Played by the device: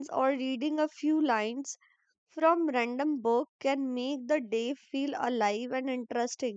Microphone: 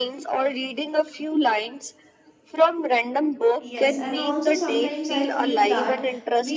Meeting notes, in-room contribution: present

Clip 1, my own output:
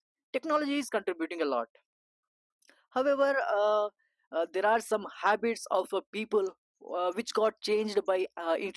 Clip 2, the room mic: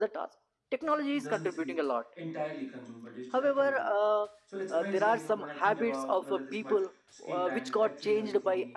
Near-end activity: present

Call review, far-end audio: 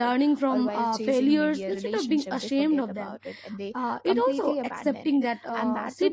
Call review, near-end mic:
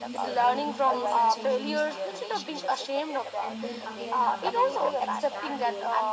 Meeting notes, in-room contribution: present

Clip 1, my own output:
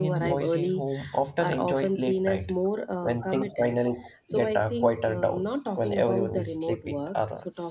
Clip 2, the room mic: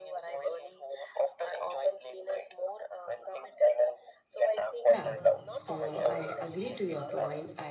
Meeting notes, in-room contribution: present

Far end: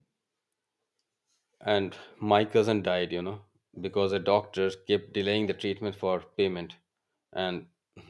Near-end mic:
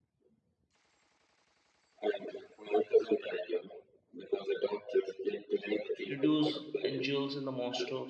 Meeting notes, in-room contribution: present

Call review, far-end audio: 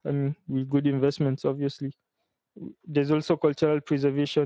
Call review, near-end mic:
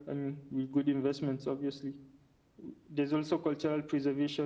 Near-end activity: none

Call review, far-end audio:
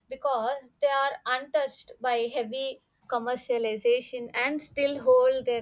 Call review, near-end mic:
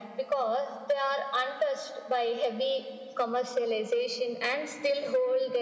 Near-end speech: none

